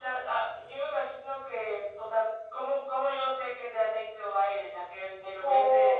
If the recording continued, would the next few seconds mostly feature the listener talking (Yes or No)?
Yes